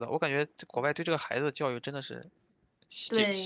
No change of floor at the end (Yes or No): No